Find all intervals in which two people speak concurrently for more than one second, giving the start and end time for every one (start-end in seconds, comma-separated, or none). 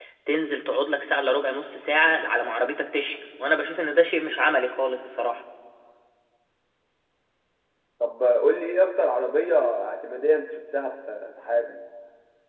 none